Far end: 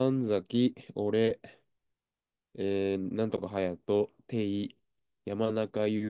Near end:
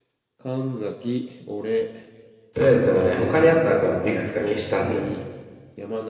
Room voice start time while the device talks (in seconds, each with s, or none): 2.5 s